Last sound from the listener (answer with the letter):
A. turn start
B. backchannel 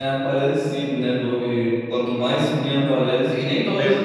B